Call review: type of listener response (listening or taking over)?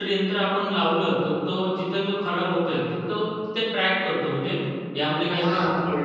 taking over